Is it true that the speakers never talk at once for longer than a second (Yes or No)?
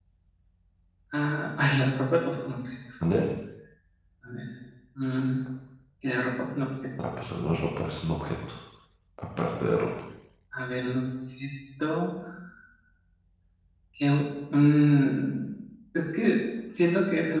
Yes